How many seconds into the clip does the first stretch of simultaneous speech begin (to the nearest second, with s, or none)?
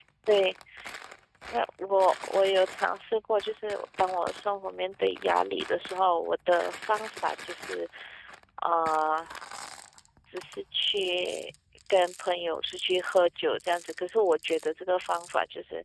none